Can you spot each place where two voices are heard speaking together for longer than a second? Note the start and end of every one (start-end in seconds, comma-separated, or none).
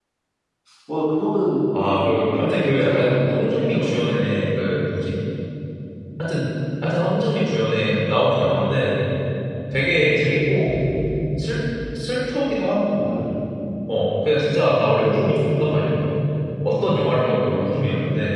1.9-4.4